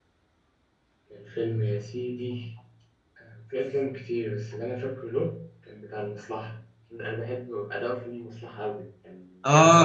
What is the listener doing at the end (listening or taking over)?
taking over